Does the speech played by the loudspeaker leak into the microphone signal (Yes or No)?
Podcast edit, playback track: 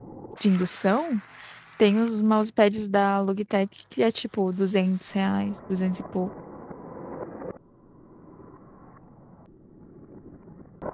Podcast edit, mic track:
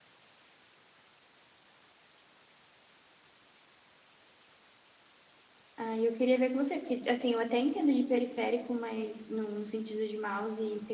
No